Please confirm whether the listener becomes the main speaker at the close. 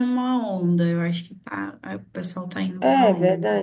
Yes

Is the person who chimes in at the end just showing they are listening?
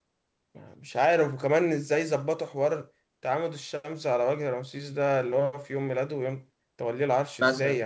No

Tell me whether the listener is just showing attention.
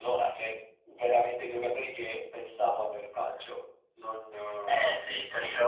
No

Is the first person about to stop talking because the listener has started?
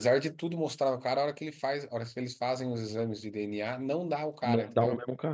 Yes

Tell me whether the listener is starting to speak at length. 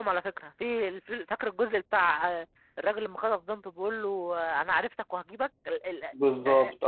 Yes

